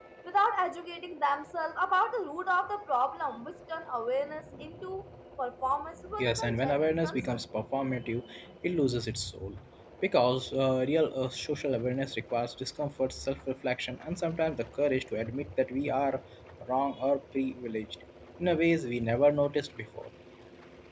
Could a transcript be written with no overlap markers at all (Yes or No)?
No